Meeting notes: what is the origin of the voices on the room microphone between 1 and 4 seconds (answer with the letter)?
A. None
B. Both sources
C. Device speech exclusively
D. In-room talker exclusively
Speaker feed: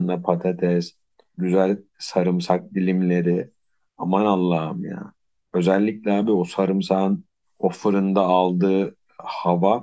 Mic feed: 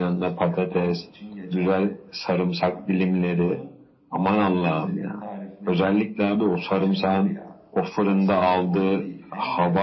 B